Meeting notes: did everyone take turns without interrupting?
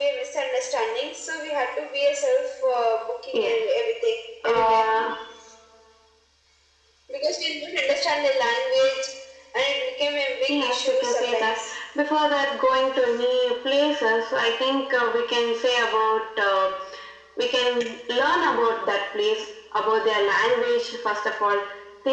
No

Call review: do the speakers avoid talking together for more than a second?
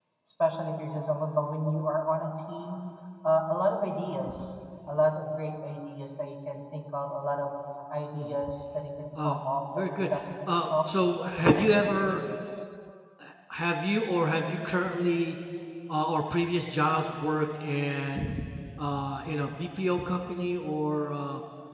No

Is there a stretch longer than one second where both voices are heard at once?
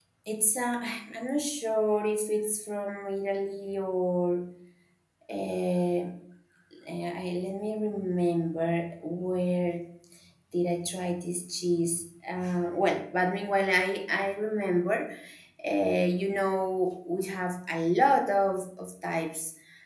No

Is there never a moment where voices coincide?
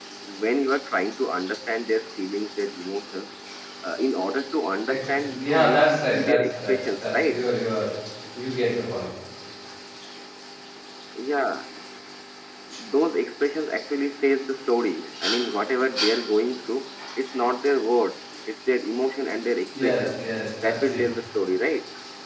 No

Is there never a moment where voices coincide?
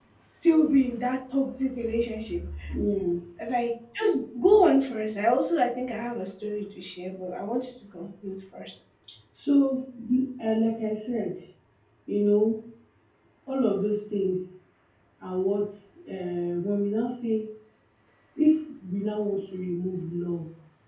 Yes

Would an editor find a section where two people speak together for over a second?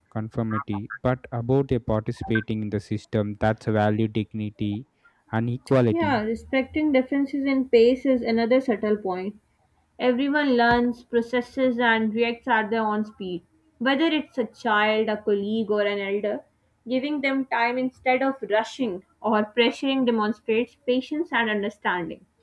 No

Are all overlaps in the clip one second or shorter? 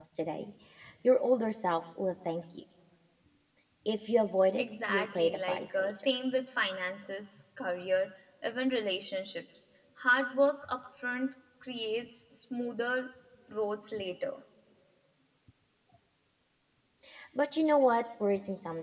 No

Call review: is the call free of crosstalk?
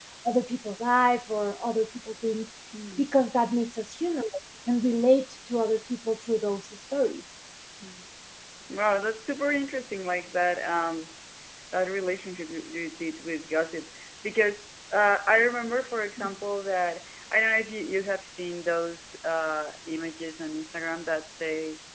Yes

